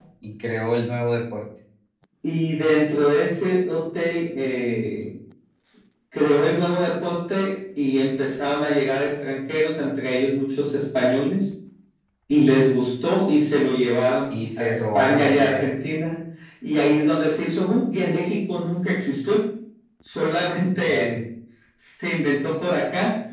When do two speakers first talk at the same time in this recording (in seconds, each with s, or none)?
14.3 s